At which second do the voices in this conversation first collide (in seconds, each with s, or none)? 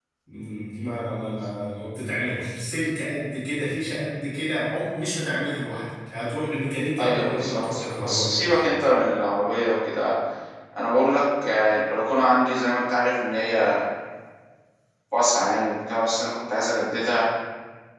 7.0 s